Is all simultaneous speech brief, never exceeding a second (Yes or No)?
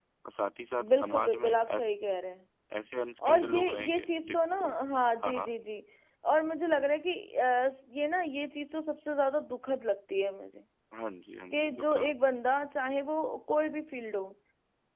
No